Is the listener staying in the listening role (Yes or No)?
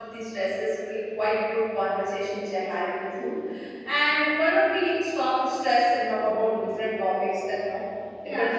No